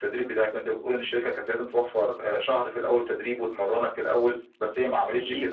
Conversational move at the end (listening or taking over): listening